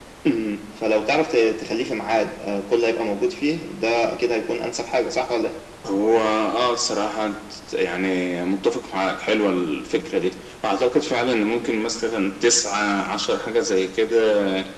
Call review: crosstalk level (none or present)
none